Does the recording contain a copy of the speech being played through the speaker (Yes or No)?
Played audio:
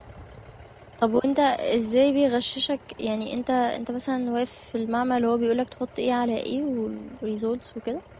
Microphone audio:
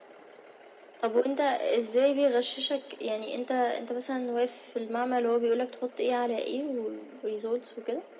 Yes